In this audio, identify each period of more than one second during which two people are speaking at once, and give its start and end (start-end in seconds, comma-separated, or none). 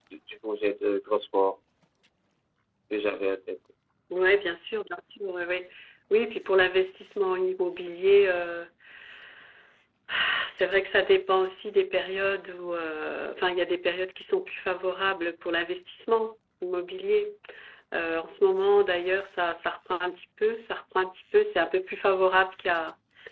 none